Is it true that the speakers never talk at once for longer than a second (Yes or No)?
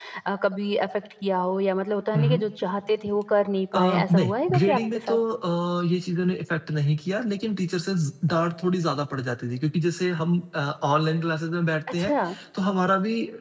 No